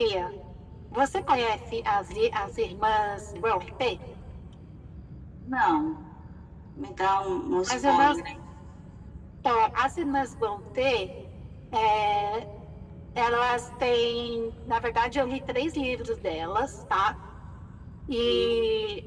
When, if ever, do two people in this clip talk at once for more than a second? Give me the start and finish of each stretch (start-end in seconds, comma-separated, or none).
none